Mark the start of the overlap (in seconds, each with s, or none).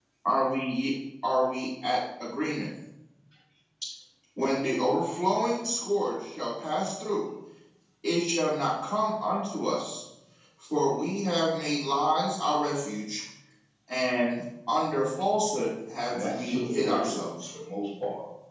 16.1 s